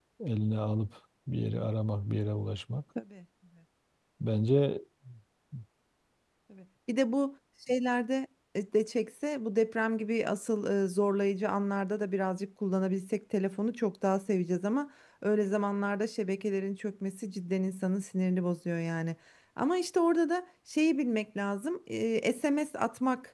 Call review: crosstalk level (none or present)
none